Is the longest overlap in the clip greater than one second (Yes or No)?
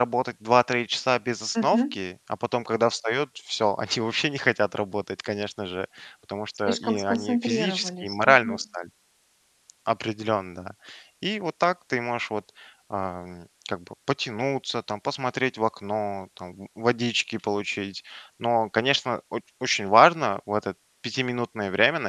Yes